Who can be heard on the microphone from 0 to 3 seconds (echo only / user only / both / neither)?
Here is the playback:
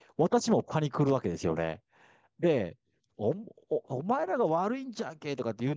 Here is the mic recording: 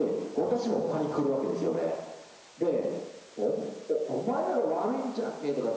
both